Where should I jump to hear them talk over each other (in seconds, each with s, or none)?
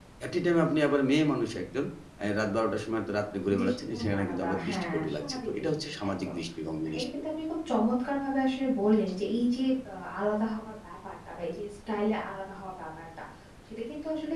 3.6 s